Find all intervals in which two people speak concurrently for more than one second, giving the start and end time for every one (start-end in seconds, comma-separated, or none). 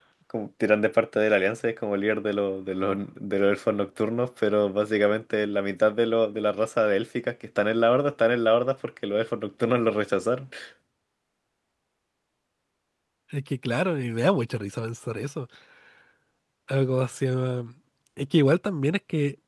none